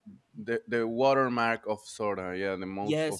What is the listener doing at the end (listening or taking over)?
taking over